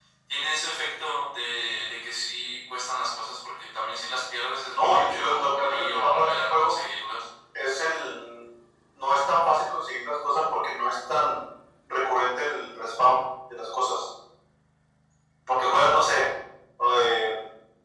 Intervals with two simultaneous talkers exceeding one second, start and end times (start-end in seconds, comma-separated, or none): 4.7-6.7